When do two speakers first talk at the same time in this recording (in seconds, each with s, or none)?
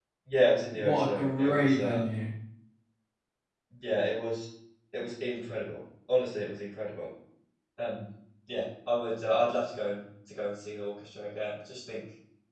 0.7 s